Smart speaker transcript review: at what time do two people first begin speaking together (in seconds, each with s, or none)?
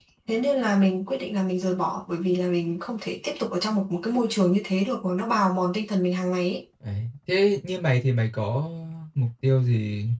none